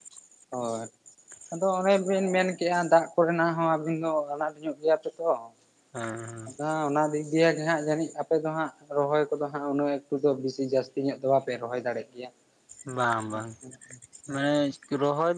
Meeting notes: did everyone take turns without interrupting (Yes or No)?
Yes